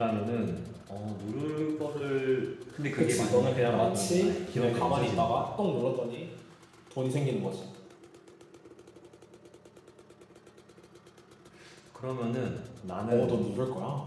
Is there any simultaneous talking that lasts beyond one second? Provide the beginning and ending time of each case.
3.0-5.5

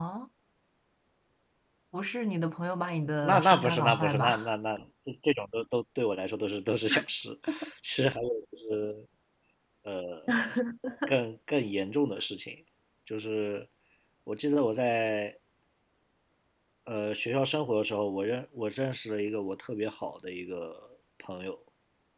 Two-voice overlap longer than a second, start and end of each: 3.2-4.5

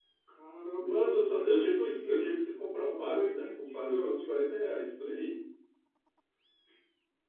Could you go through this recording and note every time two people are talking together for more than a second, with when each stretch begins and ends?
0.7-2.3, 2.9-4.3

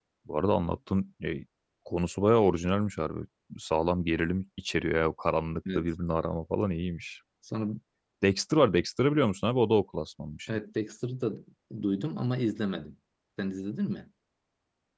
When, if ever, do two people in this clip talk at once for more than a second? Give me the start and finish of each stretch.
none

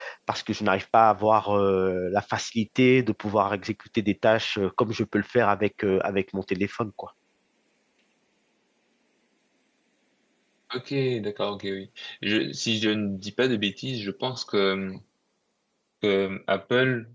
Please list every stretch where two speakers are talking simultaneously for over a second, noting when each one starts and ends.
none

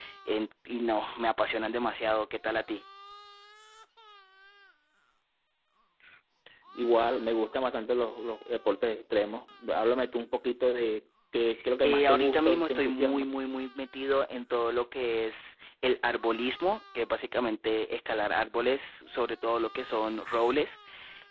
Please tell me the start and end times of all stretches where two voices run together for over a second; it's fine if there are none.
11.8-13.2

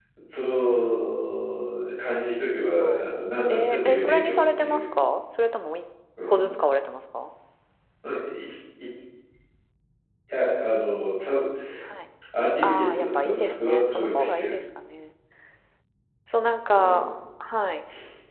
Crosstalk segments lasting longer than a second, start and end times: 3.5-4.8, 12.6-14.6

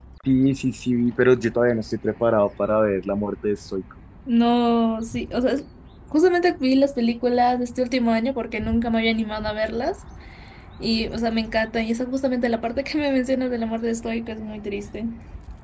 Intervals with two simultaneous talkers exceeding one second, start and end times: none

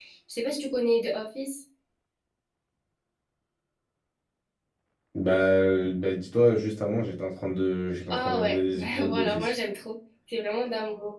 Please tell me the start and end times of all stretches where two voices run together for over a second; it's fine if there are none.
8.1-9.5

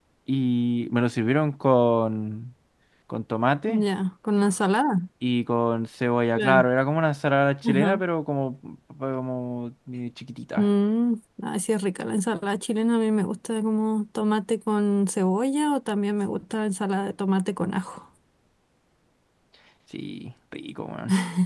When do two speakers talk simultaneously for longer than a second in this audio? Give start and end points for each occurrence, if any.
none

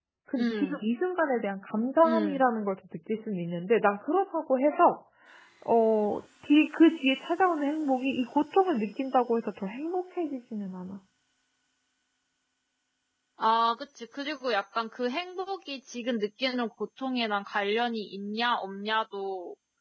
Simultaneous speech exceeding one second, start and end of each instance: none

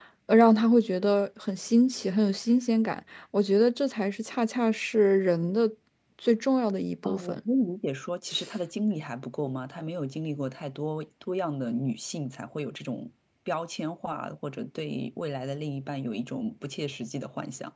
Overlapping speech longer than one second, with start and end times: none

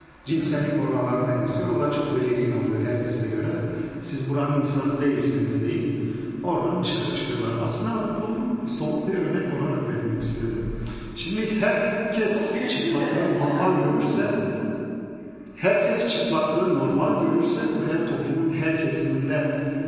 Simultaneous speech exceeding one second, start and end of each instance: 12.2-14.3

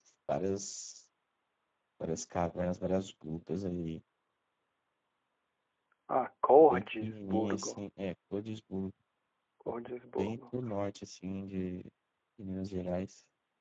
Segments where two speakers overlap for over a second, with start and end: 6.6-7.8

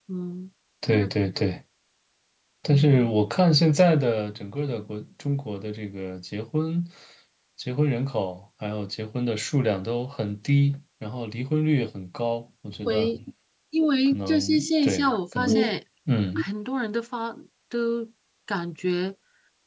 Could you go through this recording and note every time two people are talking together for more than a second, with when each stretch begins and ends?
14.1-15.8

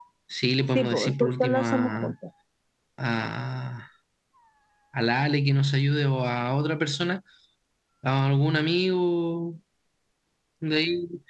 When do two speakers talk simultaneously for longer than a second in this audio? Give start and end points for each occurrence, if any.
0.8-2.1

